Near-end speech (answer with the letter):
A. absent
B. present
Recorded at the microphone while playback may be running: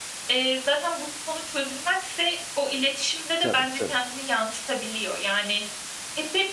B